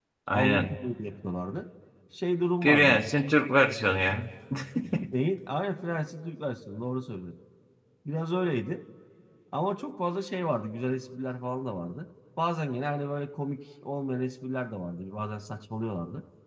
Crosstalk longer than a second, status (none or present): none